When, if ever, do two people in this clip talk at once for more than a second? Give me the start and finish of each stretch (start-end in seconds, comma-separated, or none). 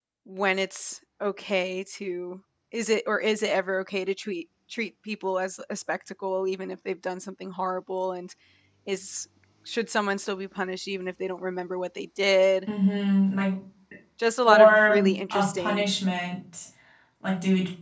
14.5-15.8